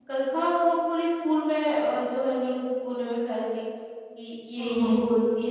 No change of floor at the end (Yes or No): Yes